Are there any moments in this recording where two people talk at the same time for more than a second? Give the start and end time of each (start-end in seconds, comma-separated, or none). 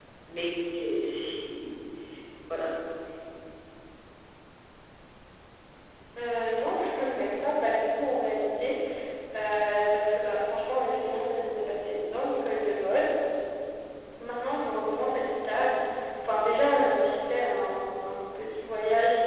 none